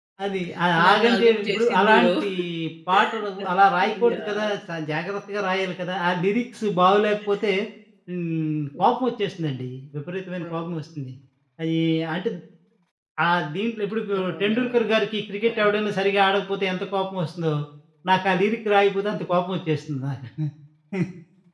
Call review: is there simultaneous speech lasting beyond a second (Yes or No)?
Yes